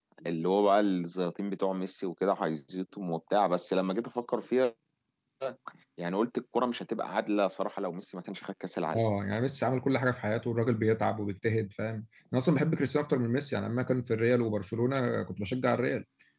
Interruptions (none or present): none